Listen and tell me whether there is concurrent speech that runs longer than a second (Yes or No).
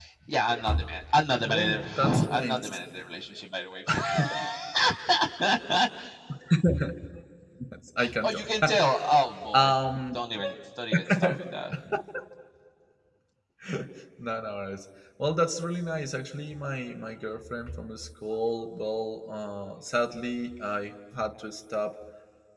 Yes